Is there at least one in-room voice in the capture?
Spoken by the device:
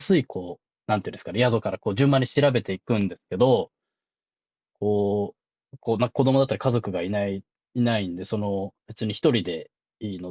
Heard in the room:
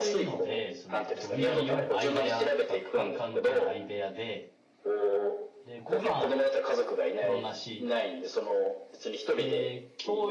Yes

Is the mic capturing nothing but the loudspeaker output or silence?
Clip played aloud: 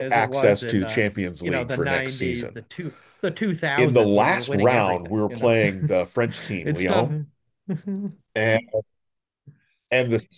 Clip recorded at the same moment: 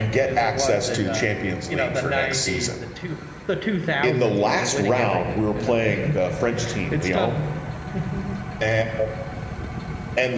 Yes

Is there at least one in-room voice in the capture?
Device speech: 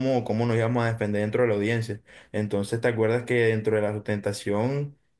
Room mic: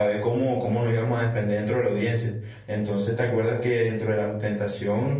No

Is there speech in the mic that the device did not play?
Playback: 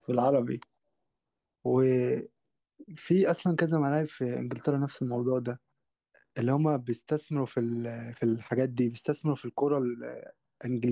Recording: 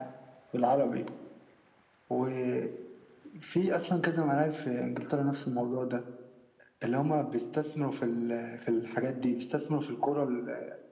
No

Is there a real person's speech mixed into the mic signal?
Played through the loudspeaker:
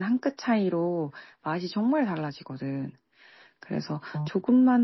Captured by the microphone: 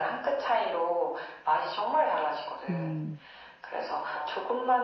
Yes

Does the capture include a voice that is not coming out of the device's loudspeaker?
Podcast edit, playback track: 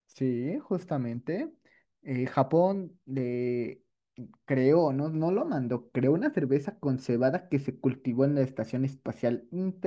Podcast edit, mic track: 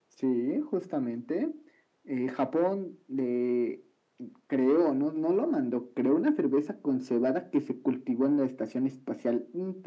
No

